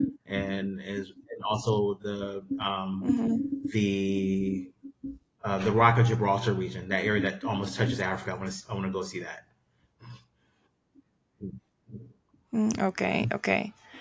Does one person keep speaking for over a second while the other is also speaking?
No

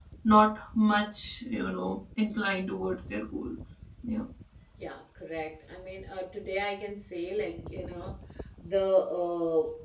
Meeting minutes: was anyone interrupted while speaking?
No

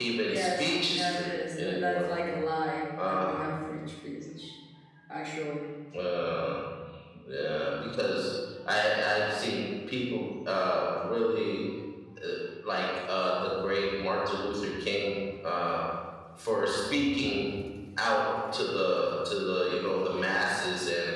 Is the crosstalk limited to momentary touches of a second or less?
No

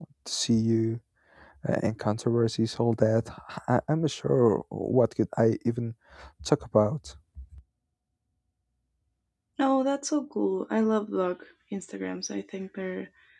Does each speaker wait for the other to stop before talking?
Yes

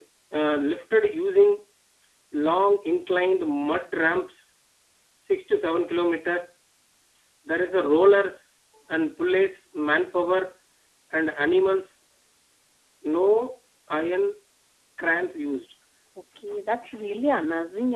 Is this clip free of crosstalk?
Yes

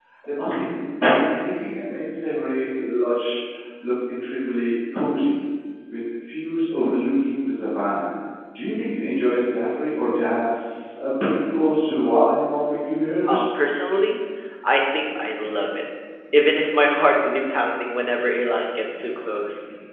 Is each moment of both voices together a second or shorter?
Yes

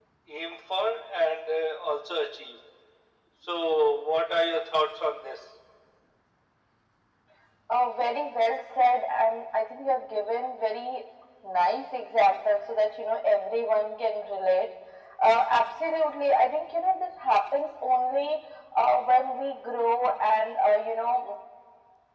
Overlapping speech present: No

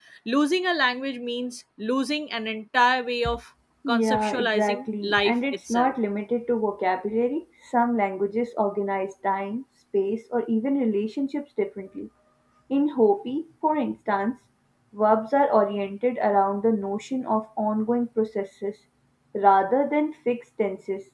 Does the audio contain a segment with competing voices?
Yes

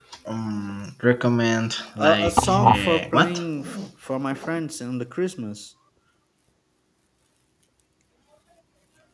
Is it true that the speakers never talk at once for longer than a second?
No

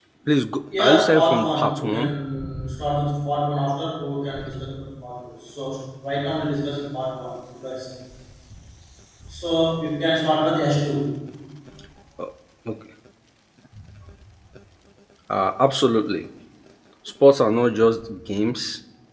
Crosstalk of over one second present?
Yes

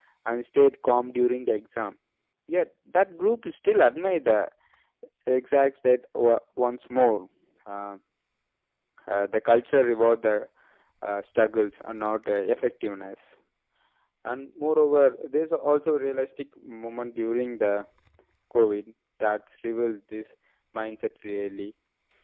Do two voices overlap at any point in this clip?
No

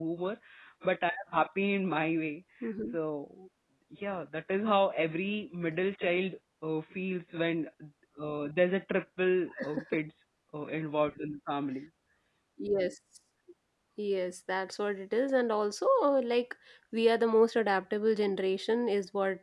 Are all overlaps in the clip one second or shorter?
Yes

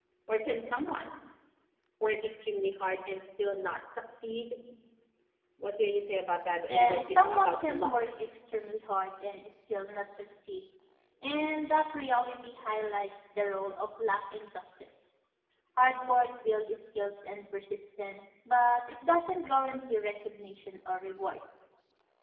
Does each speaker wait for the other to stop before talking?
No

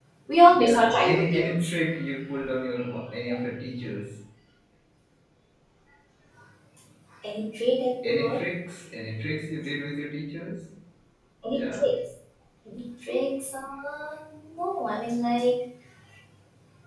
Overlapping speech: Yes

